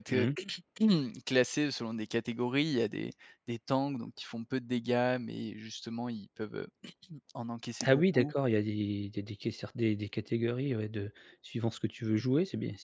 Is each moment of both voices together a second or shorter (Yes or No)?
Yes